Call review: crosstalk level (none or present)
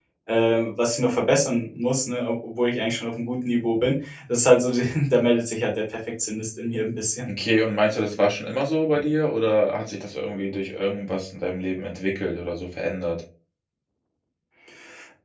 none